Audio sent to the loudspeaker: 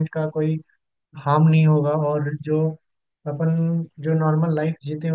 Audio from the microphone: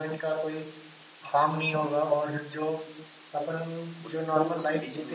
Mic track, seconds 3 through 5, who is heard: both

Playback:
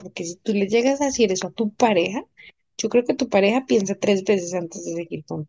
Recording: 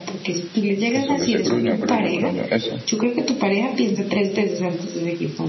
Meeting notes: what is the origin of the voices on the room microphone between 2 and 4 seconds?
both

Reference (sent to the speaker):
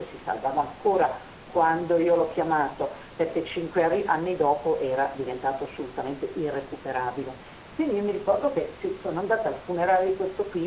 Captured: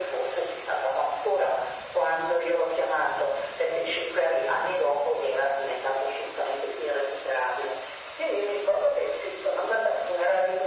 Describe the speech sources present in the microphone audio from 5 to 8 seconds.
echo only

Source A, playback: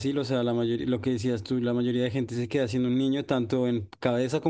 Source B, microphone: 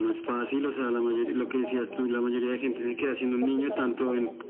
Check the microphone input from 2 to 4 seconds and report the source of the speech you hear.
both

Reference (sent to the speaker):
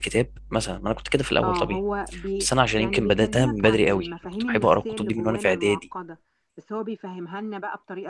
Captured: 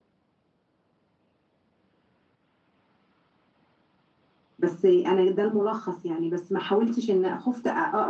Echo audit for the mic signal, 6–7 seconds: user only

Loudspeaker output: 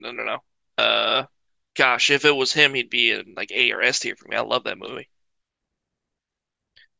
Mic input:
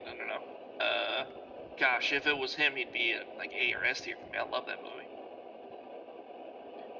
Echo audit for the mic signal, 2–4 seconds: echo only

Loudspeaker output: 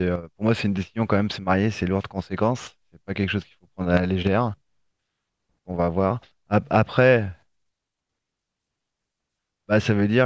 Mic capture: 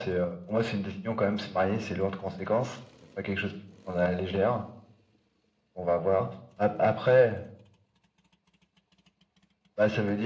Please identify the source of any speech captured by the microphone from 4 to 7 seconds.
echo only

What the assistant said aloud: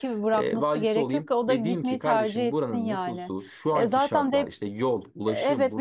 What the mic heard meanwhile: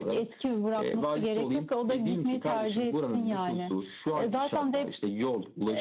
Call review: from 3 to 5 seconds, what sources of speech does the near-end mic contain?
echo only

